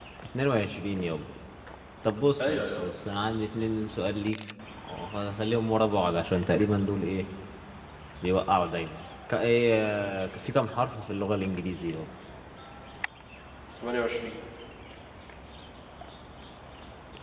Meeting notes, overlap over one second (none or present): none